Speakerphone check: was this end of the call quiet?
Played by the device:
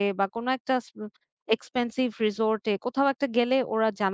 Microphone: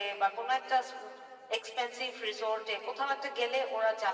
Yes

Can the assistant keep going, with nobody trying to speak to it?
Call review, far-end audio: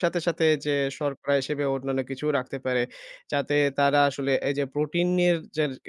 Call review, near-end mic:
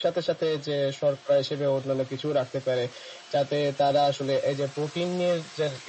Yes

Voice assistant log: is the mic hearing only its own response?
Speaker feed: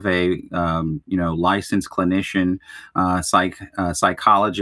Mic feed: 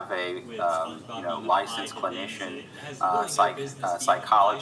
No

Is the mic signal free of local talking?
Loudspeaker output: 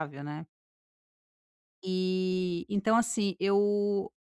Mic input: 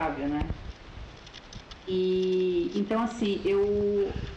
Yes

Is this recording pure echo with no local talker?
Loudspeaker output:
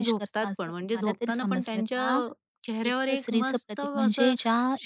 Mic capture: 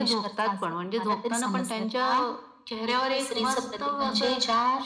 Yes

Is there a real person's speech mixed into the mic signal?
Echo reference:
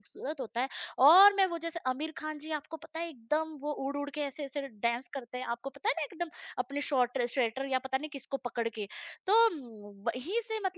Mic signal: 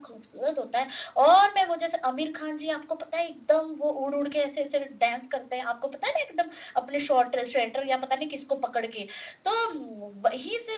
No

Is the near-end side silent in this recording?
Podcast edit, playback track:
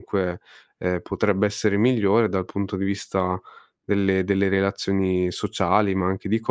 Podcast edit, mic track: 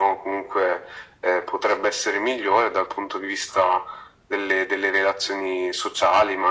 Yes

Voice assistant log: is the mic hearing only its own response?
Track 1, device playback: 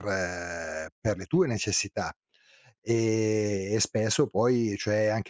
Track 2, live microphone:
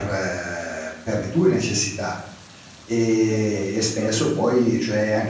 No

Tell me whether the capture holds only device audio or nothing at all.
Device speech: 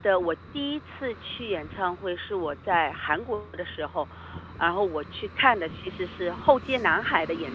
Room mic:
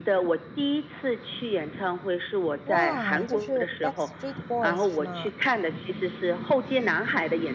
No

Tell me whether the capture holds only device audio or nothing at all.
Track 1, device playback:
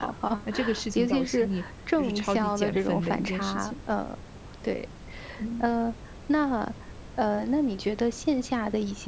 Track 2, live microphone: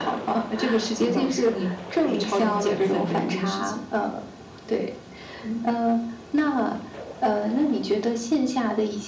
Yes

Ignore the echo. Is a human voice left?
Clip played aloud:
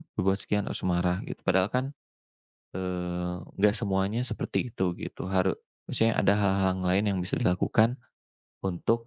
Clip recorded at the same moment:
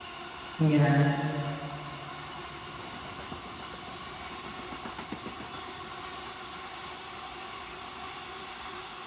Yes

